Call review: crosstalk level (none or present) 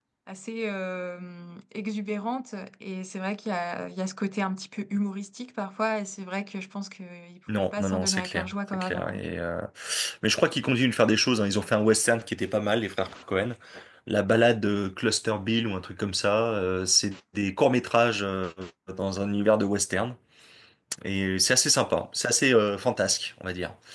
present